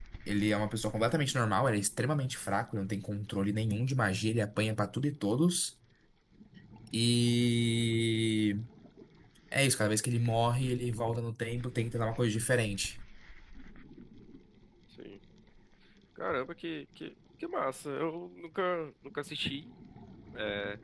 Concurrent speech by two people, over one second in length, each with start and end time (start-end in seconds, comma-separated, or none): none